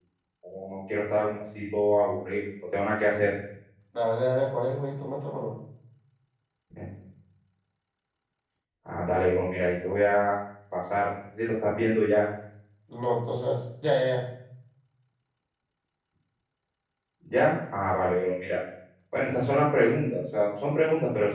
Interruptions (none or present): none